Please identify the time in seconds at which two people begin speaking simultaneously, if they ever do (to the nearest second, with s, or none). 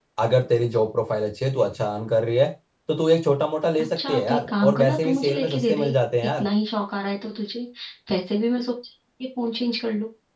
4 s